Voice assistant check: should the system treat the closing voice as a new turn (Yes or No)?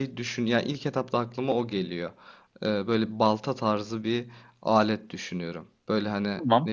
No